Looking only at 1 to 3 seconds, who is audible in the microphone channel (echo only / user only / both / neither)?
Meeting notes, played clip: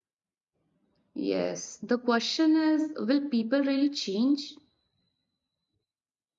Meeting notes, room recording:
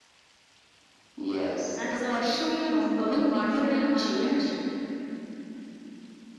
both